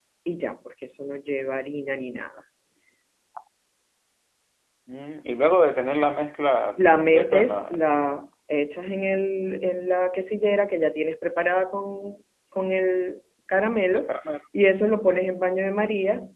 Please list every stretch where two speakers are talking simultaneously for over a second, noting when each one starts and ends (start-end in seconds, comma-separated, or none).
7.0-8.2